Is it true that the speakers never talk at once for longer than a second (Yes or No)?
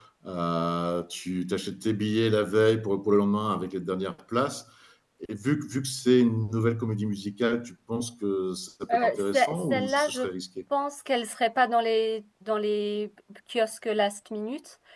No